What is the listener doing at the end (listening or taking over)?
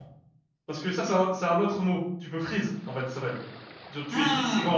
listening